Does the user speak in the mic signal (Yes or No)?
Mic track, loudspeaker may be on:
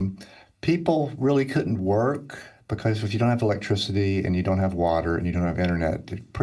Yes